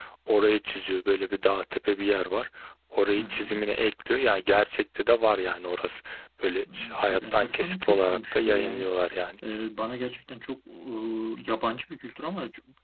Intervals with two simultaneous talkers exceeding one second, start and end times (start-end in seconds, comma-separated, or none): 6.7-8.9